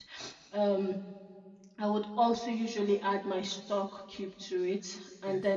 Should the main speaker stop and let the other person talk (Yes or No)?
No